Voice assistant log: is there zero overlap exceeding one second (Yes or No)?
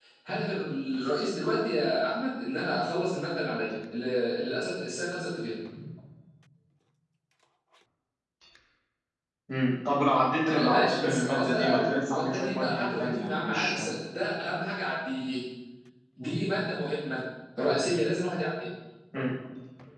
No